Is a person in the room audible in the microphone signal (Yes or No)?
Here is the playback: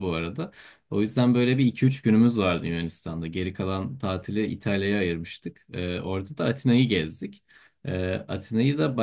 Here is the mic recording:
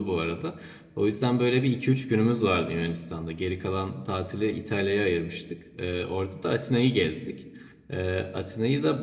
No